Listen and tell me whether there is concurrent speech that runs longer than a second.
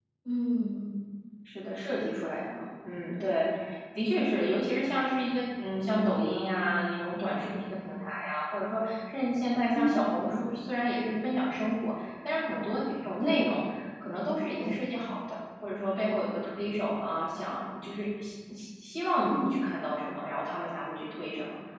No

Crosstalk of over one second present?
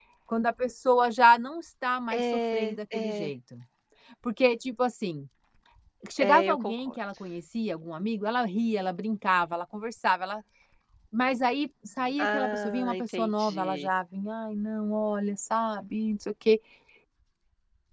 Yes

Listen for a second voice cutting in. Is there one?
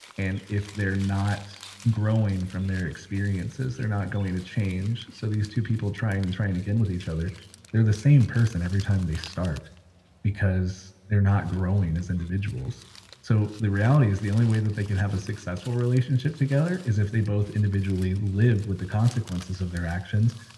No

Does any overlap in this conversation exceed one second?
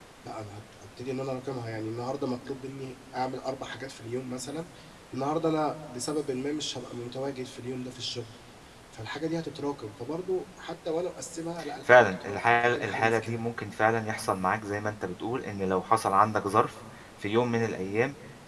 Yes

